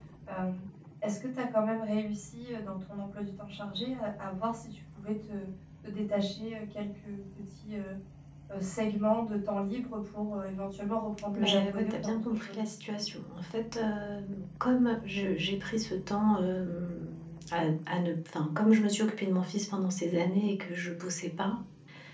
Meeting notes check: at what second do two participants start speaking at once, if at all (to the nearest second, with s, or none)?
11 s